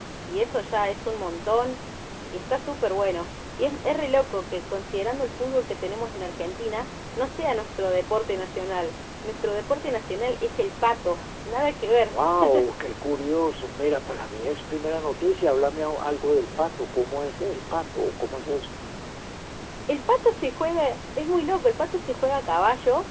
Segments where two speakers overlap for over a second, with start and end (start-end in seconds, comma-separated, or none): none